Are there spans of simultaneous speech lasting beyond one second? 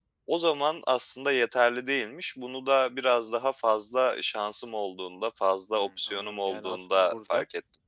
Yes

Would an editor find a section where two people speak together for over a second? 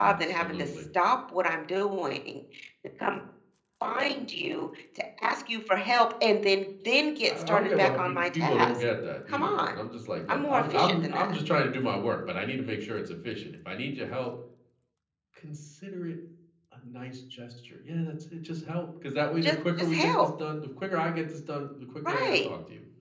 Yes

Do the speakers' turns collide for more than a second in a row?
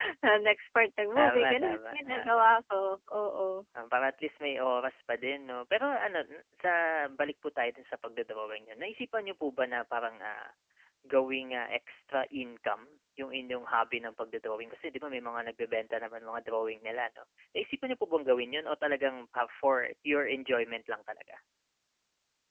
Yes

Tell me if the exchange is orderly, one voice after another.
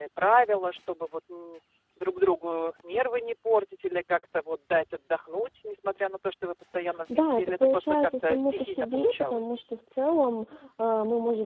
No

